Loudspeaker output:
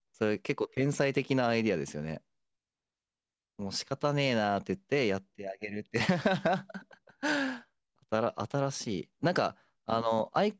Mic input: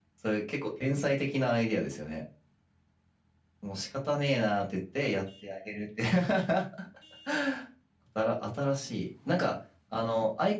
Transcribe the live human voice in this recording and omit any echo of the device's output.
none

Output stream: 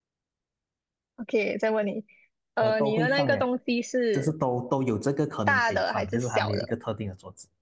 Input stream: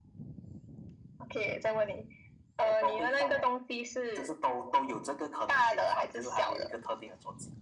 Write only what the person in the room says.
none

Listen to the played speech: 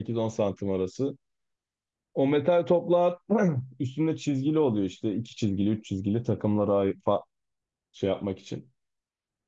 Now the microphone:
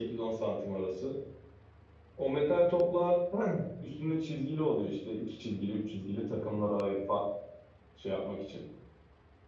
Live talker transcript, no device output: none

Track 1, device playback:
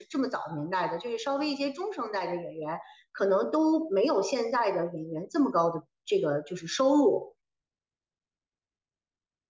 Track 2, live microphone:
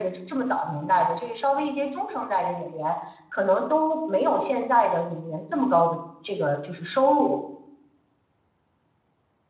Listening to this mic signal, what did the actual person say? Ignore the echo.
none

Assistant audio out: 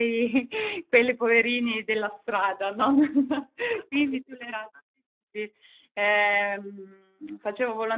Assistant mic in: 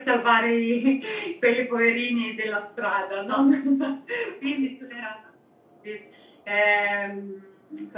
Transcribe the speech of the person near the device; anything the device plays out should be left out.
none

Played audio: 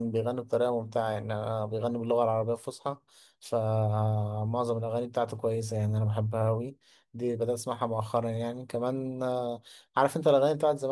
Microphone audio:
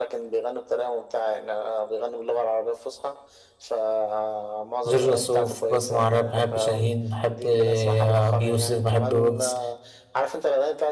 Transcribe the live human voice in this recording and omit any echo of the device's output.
جورج وسوف بسمع راب بحب شاهين بحب آه، ابي يوسف بحب ويجز

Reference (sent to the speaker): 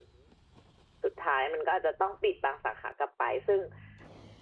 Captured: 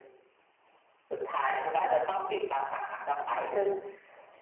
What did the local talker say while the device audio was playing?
none

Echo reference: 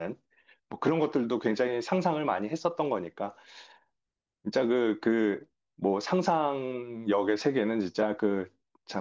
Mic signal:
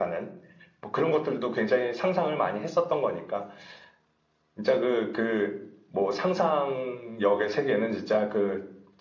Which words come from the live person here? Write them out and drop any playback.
none

